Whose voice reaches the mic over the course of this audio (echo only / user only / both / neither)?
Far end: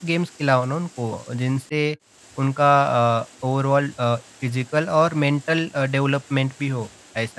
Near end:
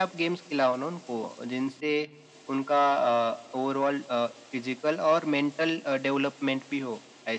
echo only